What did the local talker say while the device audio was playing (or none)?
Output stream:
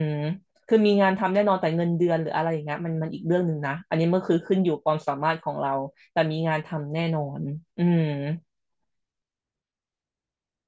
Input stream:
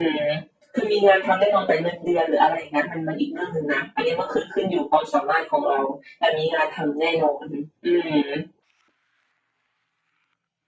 none